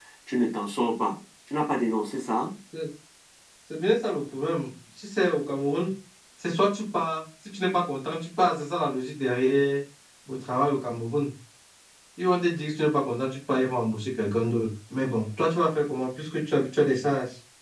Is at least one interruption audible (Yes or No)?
No